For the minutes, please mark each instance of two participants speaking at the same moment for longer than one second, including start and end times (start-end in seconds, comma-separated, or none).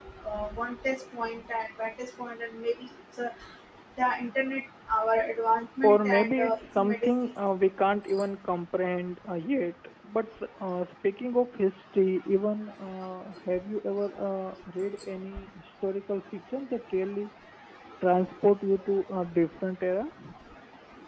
5.8-7.3